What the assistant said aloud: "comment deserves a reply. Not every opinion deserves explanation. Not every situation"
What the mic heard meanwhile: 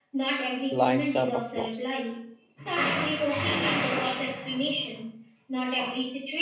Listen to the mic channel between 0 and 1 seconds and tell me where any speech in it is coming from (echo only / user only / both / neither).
both